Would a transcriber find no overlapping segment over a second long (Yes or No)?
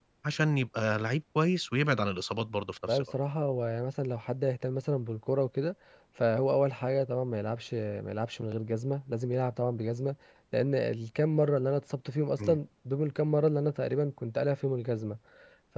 Yes